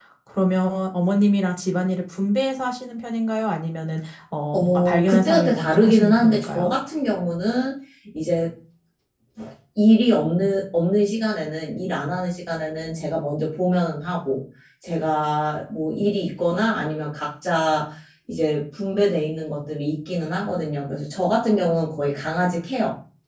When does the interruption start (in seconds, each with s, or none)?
4.5 s